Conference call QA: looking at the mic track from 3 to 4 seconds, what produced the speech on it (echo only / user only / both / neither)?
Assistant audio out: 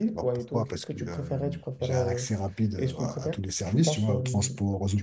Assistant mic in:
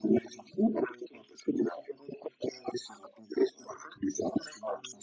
echo only